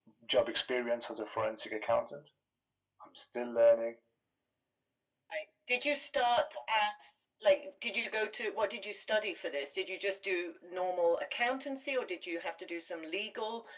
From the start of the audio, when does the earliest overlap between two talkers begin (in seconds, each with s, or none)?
none